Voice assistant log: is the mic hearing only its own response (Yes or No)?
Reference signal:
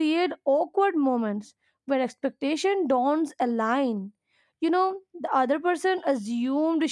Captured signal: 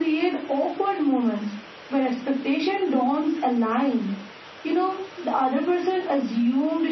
Yes